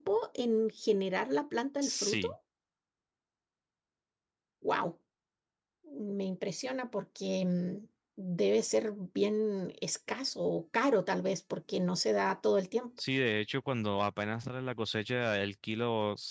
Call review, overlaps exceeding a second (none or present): none